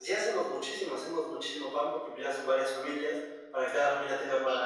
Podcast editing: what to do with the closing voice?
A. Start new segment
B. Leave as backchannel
B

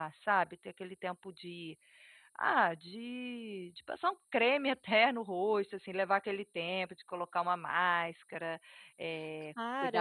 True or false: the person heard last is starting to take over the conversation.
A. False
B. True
B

